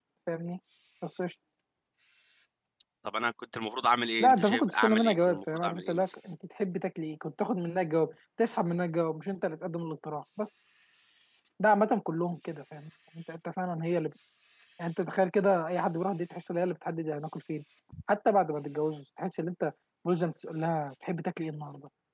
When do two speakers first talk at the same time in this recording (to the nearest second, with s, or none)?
4 s